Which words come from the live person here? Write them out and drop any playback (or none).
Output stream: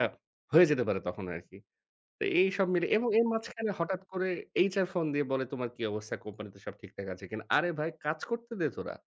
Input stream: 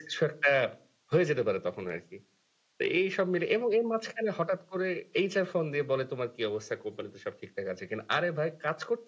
none